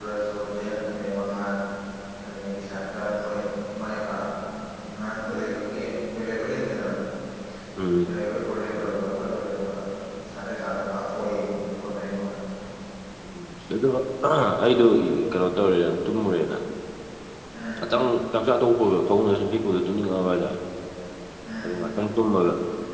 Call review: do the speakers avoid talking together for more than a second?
Yes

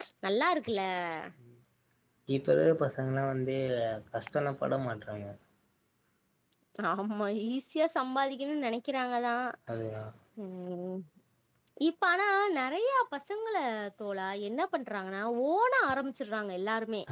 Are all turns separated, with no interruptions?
Yes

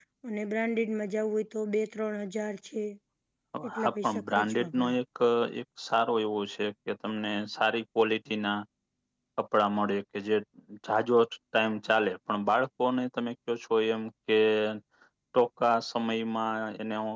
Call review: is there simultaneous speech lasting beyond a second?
Yes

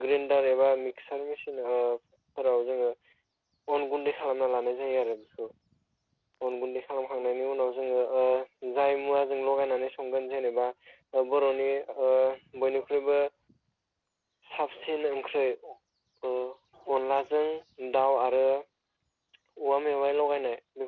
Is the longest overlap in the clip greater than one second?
No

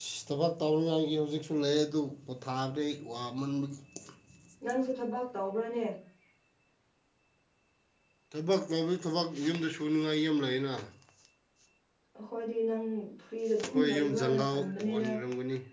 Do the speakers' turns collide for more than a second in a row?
Yes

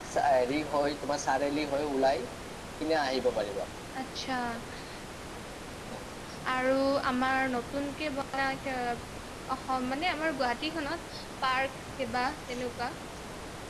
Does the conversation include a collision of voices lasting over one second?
No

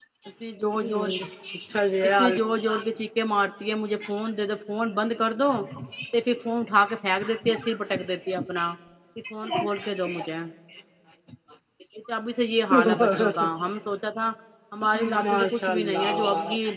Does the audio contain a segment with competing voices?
Yes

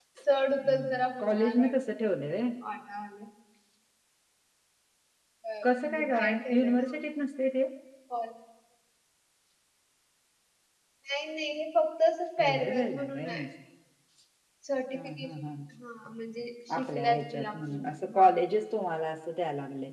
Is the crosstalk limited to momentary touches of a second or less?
No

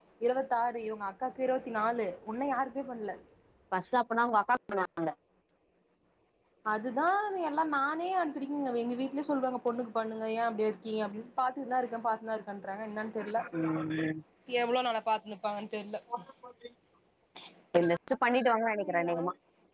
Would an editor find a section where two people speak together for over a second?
No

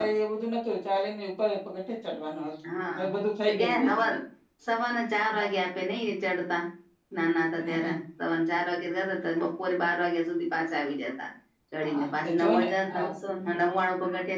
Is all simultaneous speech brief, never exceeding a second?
No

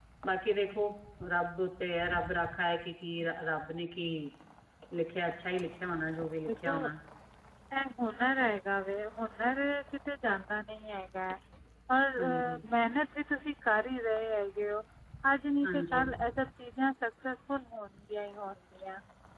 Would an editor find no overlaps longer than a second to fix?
Yes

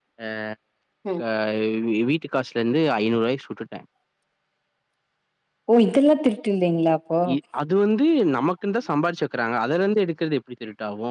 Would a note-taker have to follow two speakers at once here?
No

